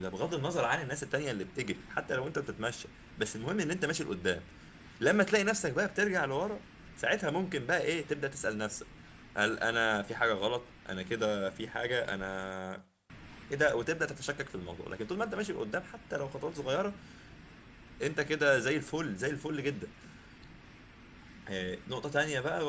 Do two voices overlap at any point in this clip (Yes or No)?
No